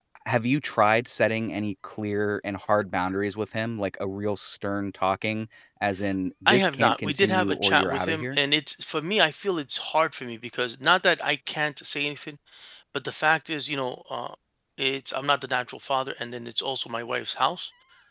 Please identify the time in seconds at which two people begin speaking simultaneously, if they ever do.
6.5 s

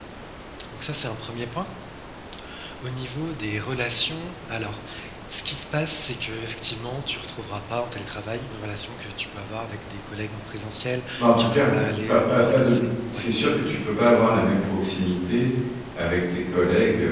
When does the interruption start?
11.2 s

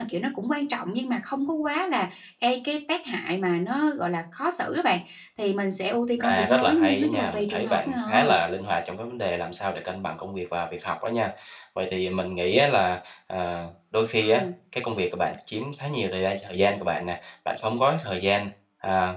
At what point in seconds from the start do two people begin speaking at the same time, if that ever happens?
6.2 s

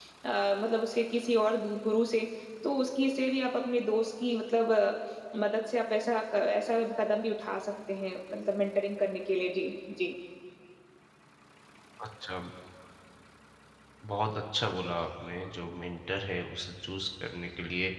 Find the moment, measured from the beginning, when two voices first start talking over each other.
none

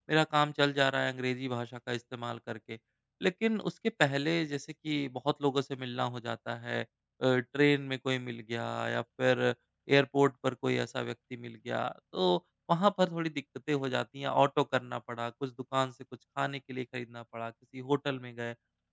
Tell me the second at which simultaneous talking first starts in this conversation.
none

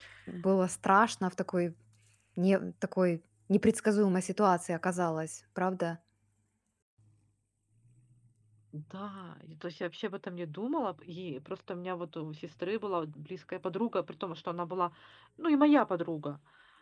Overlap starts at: none

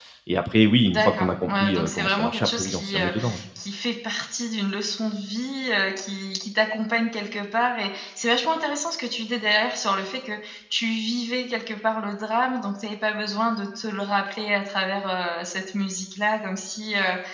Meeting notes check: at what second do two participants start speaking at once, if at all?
0.9 s

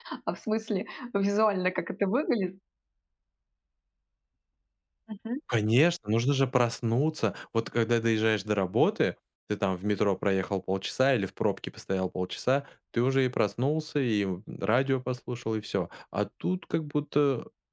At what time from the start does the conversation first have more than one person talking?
none

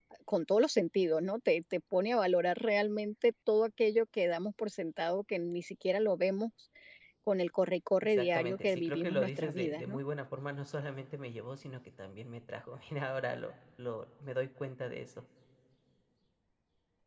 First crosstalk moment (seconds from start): 8.0 s

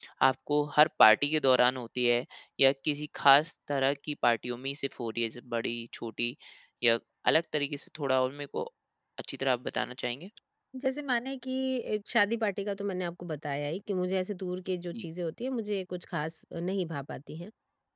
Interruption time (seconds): none

